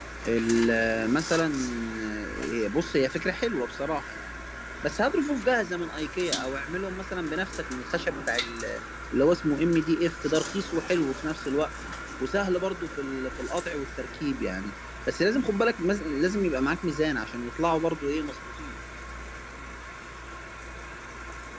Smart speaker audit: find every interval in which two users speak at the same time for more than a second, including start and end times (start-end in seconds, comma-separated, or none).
none